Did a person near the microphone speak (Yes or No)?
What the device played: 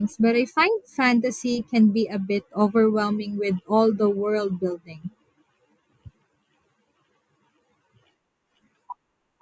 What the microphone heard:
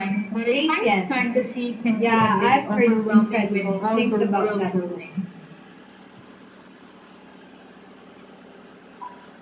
Yes